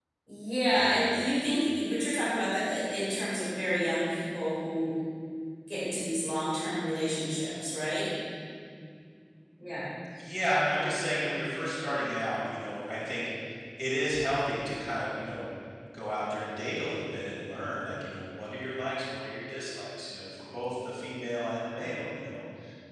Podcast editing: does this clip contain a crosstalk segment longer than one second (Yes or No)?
No